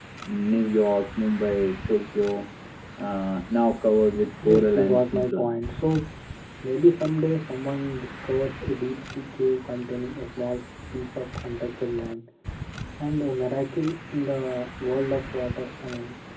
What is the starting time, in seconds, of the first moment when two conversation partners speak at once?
4.4 s

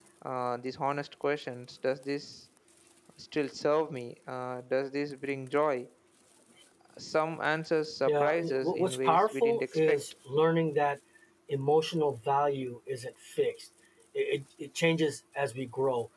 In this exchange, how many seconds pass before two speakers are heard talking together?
8.1 s

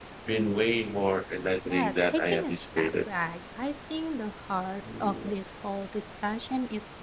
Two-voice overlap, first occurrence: 1.7 s

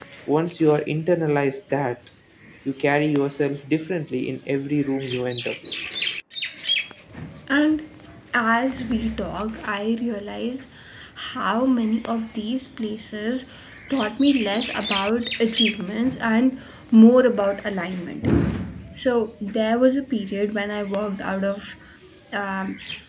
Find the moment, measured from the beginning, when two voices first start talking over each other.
none

